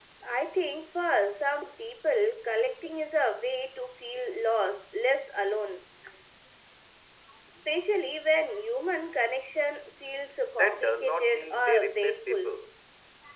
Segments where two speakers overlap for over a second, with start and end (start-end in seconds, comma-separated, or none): 10.6-12.5